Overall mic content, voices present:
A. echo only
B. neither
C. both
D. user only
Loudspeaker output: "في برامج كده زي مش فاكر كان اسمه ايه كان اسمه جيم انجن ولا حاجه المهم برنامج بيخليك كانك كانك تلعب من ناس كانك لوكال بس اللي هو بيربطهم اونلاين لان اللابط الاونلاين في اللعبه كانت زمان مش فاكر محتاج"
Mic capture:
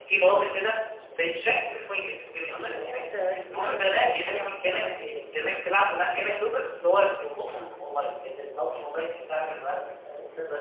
C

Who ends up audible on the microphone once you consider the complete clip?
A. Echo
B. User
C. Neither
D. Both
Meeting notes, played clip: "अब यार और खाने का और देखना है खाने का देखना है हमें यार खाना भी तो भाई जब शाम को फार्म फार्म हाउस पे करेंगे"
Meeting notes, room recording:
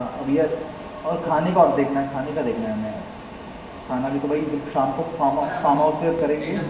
D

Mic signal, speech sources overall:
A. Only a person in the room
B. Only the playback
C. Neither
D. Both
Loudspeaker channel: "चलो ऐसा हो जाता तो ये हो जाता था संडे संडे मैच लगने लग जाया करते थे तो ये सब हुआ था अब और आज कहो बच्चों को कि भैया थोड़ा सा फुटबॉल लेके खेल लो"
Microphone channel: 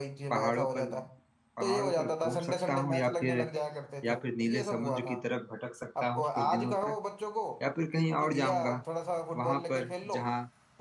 D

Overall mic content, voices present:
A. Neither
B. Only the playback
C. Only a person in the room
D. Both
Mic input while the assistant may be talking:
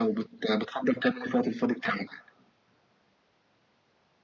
B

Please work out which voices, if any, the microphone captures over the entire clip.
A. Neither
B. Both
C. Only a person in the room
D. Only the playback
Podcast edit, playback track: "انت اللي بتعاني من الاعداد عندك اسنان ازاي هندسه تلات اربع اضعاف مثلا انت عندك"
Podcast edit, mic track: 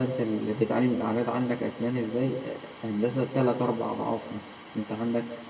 D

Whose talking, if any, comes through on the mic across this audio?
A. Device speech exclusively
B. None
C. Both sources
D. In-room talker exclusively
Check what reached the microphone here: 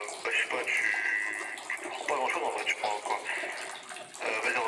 A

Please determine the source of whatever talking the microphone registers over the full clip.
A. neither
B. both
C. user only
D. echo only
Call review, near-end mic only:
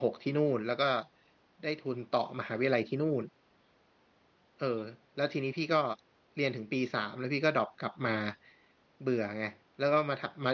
C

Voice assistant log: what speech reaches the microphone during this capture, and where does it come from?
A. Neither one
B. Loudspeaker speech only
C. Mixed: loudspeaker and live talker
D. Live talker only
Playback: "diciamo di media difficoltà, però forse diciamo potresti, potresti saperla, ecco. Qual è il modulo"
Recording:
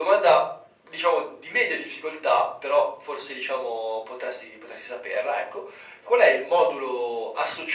B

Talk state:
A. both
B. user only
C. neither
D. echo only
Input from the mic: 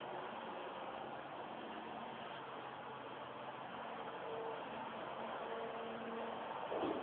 C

